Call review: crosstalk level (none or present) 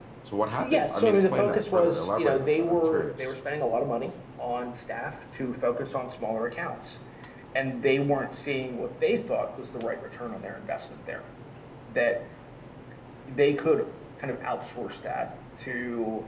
present